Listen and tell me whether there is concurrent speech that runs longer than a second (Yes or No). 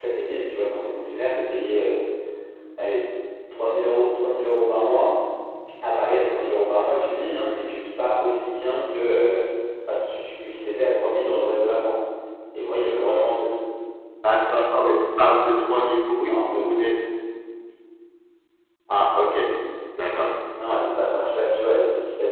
No